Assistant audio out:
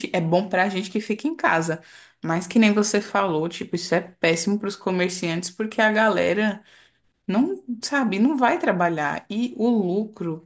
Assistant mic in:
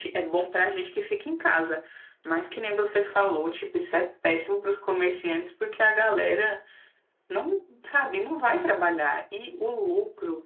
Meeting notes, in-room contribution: none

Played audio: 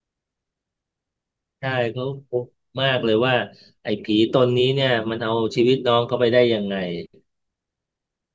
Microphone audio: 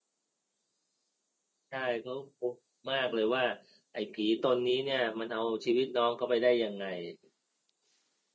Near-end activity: none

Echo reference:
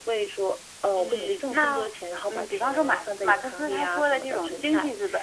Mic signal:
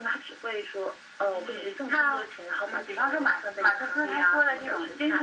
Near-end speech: none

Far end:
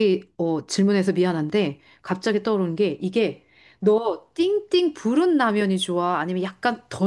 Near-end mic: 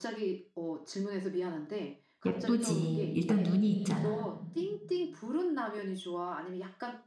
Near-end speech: present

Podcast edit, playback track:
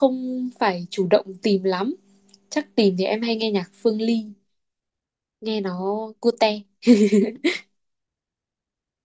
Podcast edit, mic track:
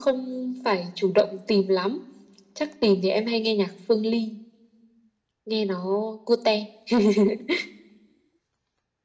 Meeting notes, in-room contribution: none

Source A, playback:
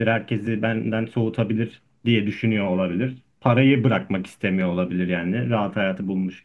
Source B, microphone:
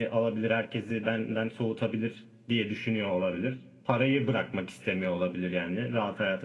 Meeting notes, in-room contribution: none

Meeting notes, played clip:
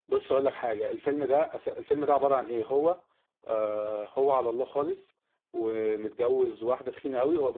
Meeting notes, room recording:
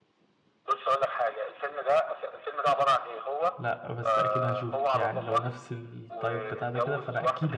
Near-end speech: present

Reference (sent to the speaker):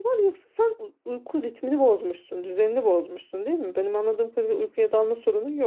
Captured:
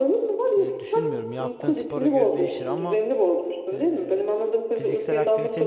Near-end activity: present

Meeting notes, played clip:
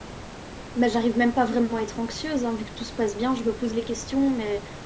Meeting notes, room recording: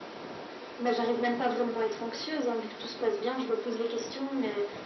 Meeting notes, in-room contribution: none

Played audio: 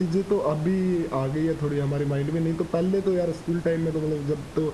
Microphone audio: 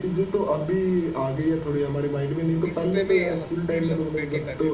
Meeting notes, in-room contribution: present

